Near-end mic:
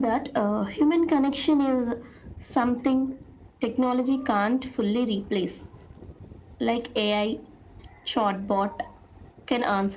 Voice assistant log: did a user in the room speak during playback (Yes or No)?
No